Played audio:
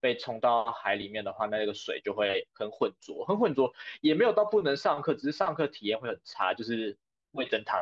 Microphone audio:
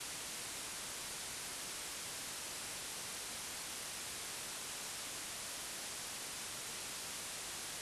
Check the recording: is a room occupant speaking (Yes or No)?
No